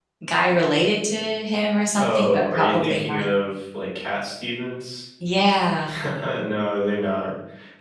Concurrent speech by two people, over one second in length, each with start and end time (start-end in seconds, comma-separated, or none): 1.9-3.2